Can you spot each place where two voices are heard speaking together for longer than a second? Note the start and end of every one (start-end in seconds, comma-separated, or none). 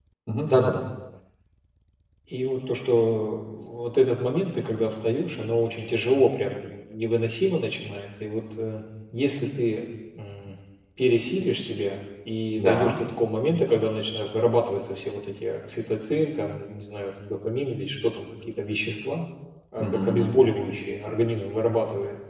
none